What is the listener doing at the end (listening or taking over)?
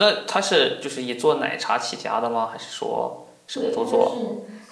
taking over